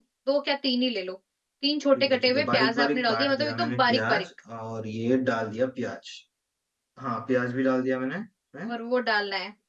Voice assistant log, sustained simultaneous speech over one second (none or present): present